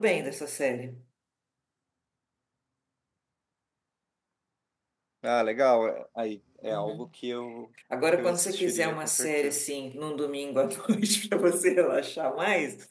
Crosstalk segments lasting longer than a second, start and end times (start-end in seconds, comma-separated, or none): 8.2-9.6